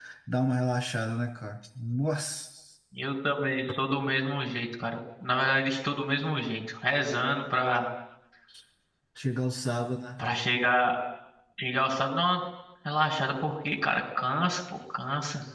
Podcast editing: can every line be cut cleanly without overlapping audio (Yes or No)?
Yes